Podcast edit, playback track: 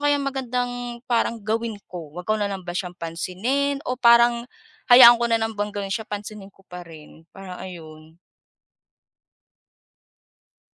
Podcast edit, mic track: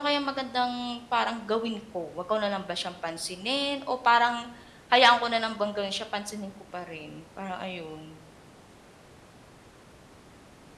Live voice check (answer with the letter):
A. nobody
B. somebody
A